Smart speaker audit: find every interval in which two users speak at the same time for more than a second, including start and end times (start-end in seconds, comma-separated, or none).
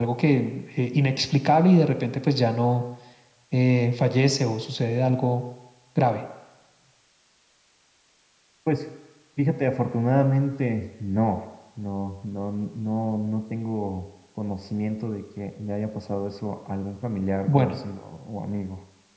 none